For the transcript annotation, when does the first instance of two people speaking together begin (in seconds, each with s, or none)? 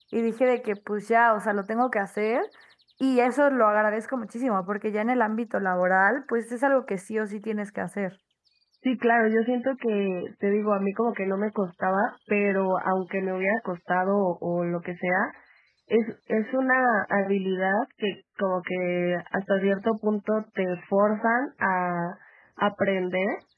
none